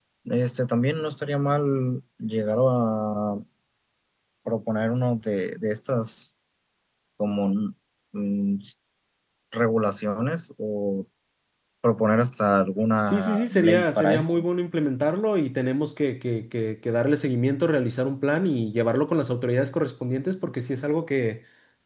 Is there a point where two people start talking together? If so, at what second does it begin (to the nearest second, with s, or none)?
13 s